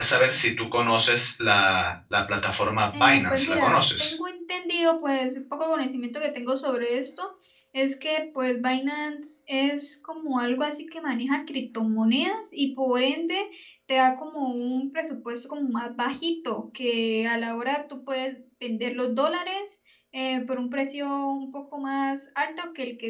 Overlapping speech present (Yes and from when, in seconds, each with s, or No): Yes, from 2.9 s